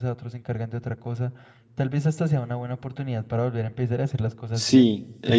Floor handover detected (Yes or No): Yes